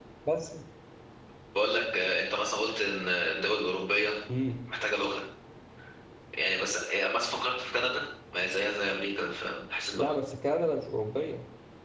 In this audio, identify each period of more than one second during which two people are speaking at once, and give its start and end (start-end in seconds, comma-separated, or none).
none